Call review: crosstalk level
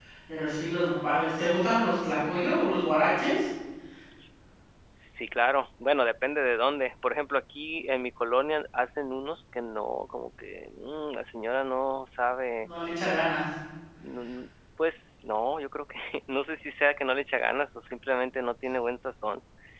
none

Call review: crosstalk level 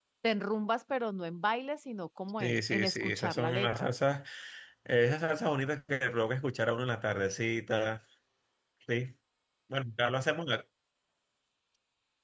present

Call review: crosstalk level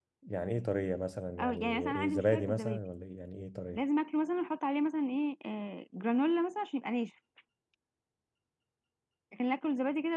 present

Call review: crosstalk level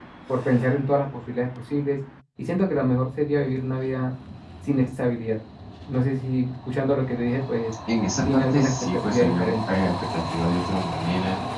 present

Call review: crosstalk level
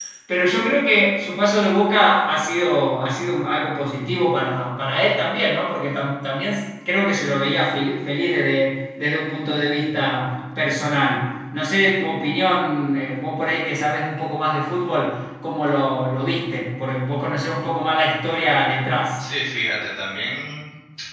none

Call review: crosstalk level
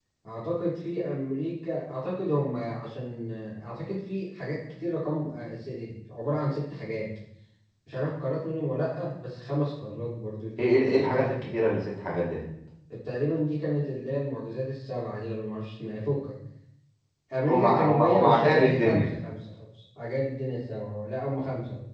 present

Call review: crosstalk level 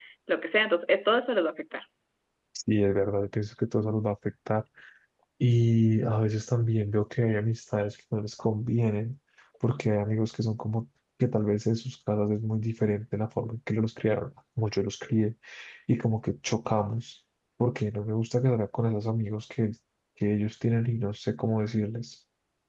none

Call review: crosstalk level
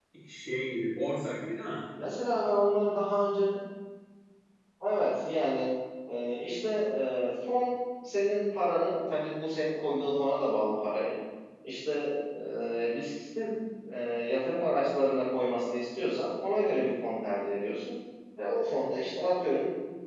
none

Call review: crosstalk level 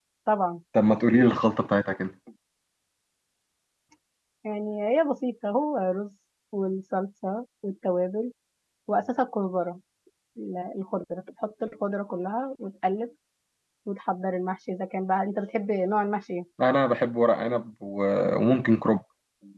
none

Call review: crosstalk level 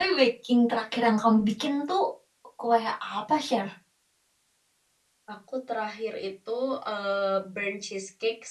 none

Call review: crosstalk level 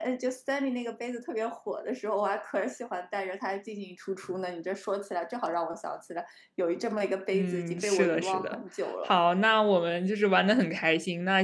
present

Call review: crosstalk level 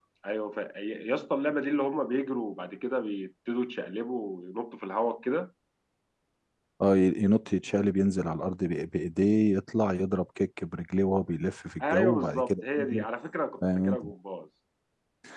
present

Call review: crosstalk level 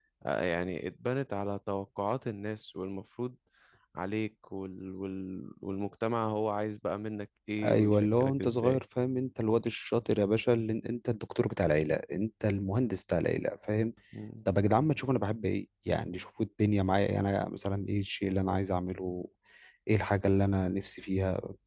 present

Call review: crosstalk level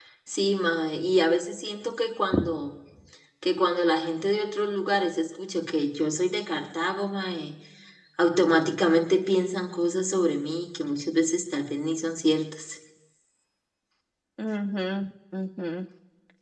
none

